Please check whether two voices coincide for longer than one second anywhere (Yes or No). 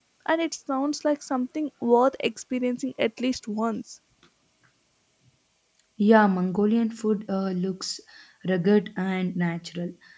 No